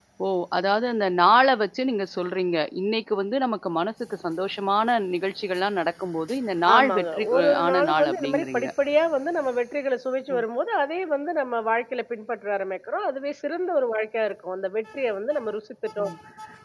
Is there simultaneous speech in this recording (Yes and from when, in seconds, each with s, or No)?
Yes, from 6.7 s